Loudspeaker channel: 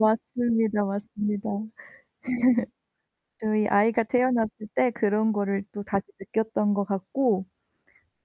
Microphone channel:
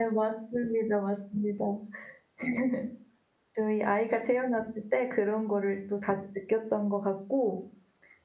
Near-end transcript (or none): none